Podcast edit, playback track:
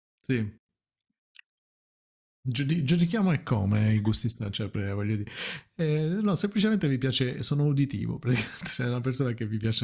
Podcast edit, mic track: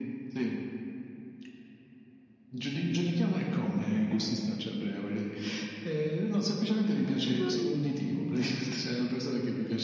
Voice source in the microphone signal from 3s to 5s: echo only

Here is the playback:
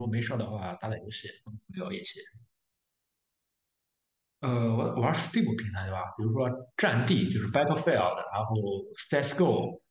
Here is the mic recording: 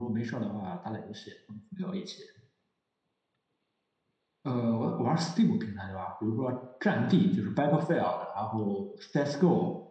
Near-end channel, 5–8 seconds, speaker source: echo only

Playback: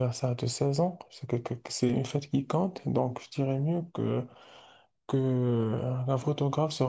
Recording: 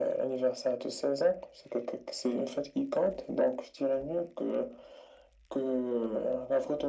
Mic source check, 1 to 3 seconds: echo only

